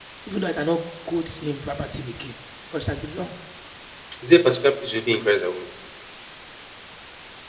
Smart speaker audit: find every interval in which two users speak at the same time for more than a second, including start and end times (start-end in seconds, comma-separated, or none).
none